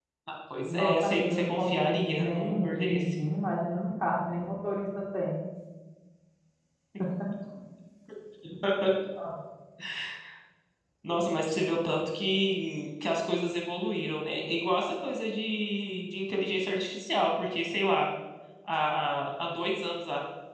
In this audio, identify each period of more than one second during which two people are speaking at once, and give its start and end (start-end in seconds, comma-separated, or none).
0.7-3.2